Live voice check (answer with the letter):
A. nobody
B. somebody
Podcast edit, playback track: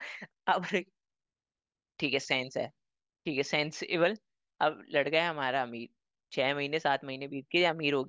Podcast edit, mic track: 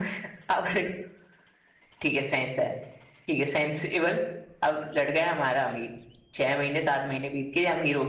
A